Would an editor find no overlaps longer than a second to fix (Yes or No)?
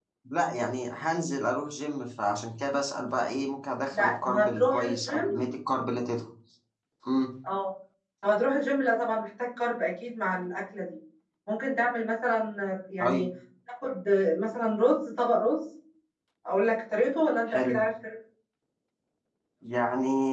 No